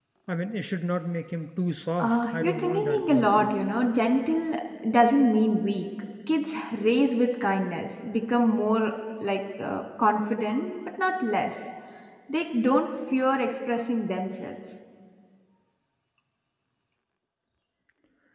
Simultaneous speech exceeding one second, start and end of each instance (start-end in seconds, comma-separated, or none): 2.0-3.5